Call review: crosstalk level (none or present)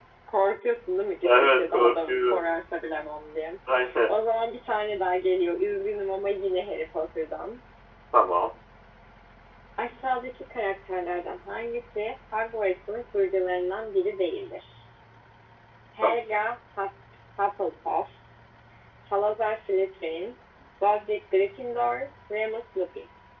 present